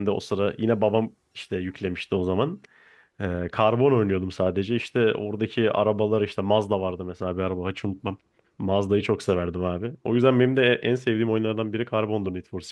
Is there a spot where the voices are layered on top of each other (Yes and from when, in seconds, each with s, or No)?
No